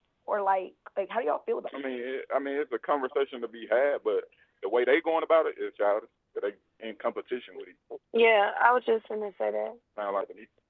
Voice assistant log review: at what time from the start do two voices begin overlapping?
none

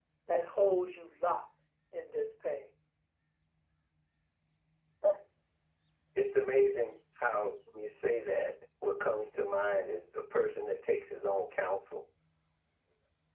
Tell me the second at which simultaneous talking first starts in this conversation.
none

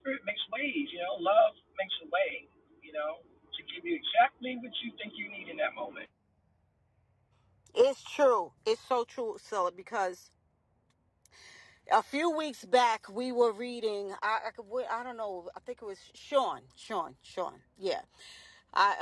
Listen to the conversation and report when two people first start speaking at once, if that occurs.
none

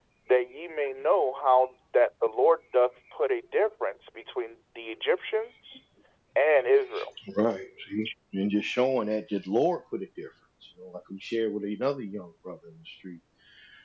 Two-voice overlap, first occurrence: none

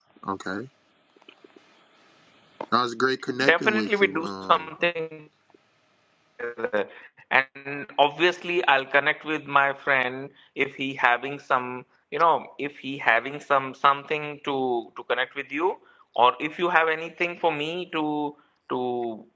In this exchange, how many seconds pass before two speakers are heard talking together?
3.4 s

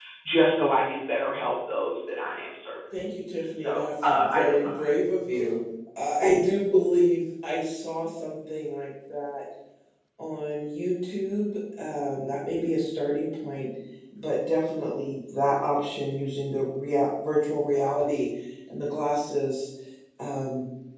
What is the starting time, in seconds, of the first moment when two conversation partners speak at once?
3.6 s

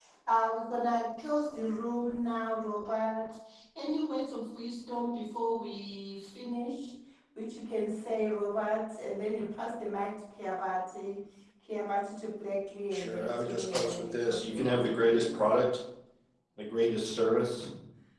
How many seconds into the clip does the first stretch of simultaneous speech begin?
12.9 s

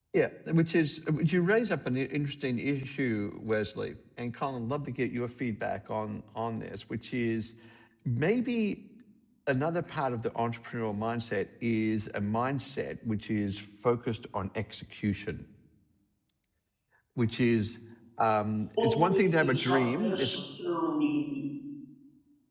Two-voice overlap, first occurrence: 18.8 s

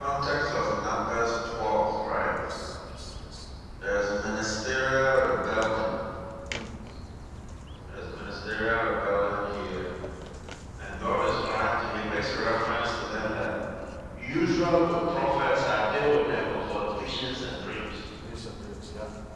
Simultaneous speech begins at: none

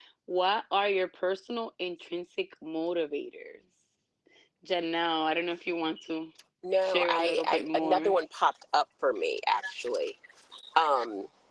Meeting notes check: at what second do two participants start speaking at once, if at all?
6.8 s

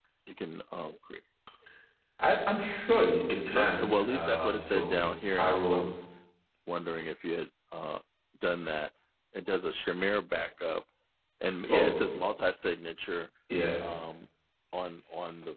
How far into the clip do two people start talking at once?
3.4 s

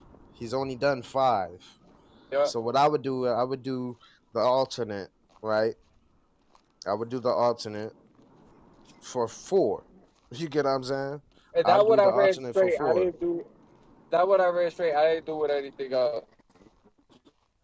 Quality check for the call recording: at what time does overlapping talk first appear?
11.6 s

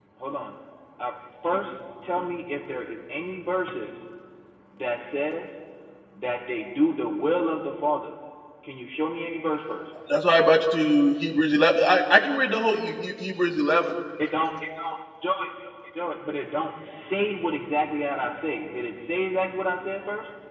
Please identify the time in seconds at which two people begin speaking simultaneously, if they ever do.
none

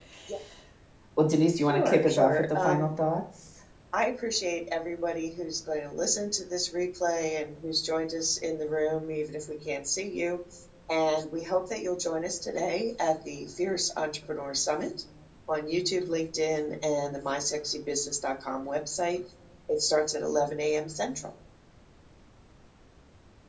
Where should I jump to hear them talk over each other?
1.7 s

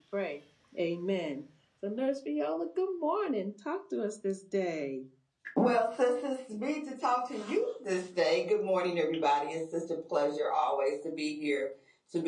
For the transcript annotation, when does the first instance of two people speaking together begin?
none

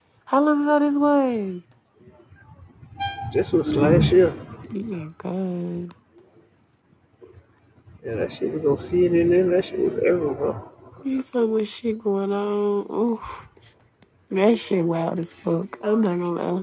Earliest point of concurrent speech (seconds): none

